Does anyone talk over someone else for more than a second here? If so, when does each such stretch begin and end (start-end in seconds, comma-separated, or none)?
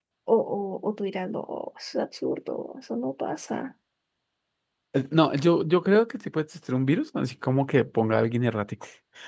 none